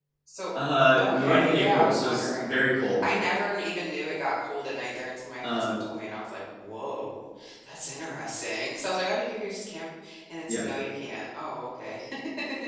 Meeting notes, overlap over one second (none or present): present